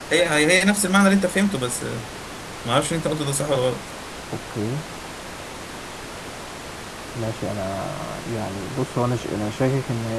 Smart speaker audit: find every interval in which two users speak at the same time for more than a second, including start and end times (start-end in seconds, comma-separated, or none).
none